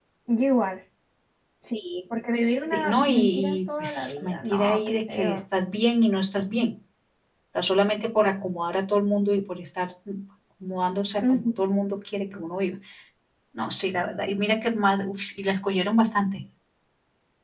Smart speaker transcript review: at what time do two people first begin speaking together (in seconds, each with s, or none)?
2.7 s